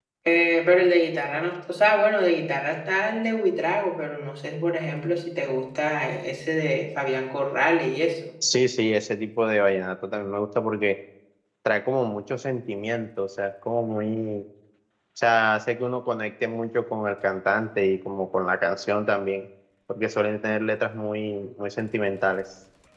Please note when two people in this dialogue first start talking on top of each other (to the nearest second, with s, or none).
none